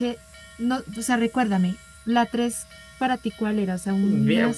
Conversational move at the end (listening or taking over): taking over